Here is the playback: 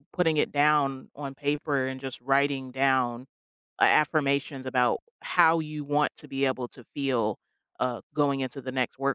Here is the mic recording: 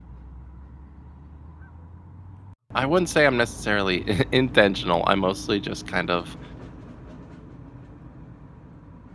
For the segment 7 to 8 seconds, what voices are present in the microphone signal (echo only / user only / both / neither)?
neither